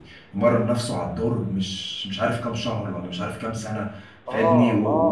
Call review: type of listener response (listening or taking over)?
listening